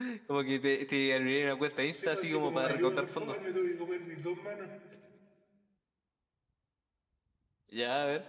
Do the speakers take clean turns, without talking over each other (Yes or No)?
No